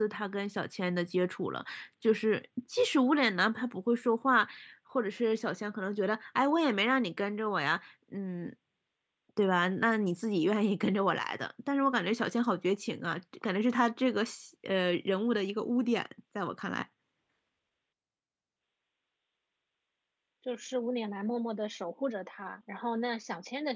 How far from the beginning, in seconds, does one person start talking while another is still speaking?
none

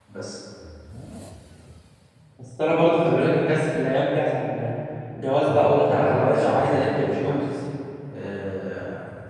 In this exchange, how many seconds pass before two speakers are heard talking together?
5 s

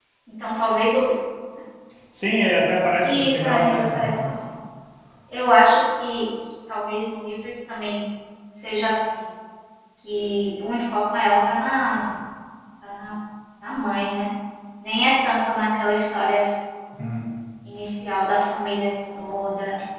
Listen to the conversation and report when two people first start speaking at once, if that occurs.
3 s

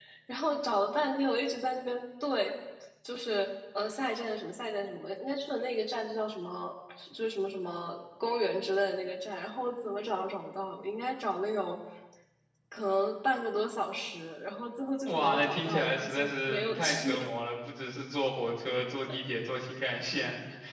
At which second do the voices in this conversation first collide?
15 s

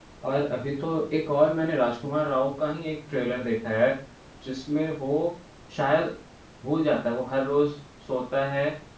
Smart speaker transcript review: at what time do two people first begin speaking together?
none

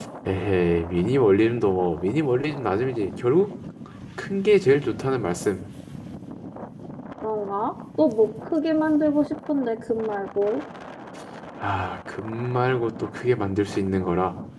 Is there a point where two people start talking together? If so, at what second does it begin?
none

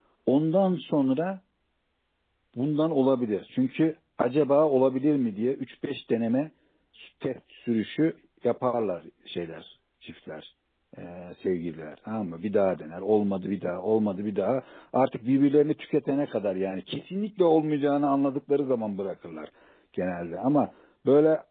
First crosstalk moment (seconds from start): none

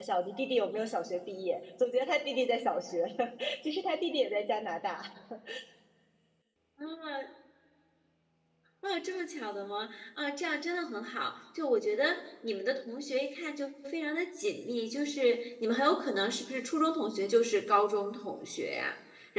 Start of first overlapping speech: none

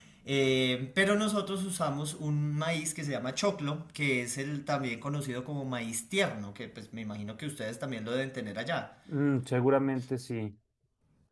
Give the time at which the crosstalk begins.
none

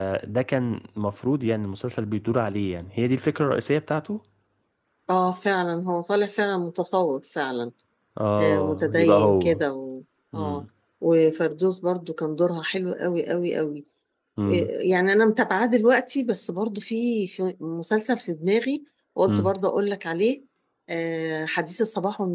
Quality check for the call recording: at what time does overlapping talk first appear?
8 s

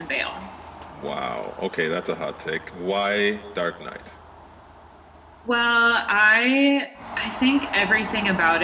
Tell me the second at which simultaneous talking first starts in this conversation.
none

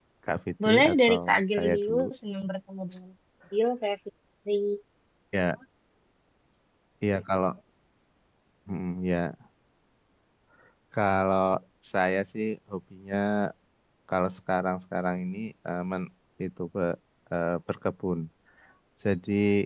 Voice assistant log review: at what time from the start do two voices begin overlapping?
1 s

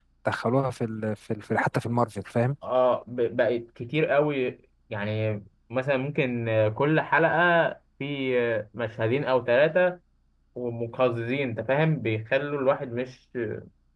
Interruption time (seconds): none

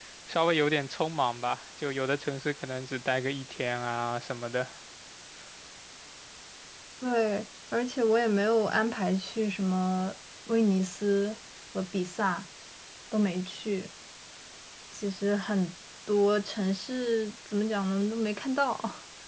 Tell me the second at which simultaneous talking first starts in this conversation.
none

